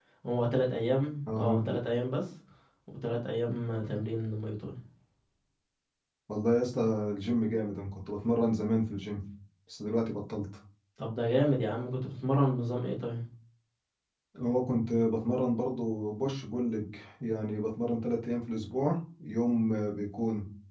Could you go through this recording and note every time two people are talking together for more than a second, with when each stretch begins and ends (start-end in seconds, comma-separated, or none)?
none